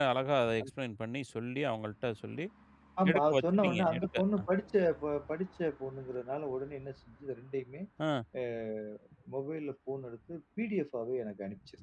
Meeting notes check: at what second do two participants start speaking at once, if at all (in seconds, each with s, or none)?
3.1 s